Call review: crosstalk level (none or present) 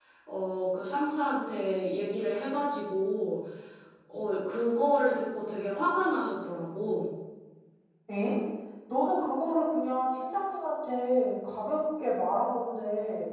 none